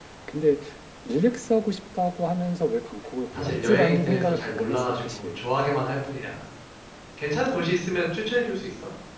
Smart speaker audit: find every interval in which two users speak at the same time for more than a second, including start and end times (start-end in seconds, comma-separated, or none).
3.4-5.4